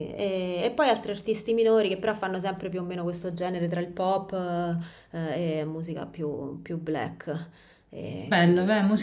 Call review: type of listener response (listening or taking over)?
taking over